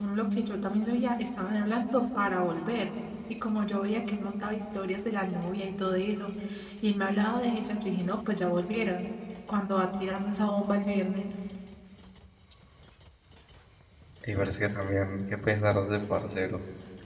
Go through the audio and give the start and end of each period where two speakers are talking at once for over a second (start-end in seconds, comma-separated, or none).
none